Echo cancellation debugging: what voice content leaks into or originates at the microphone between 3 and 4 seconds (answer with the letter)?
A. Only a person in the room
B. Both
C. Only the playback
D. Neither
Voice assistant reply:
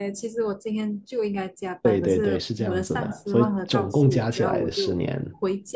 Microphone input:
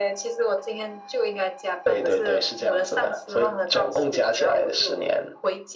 C